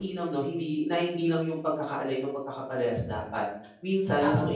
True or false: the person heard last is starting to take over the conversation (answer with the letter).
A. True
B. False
B